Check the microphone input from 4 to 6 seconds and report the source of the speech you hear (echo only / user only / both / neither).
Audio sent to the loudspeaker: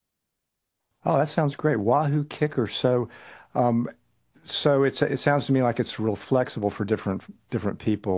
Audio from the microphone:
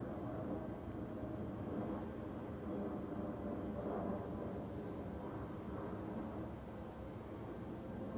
neither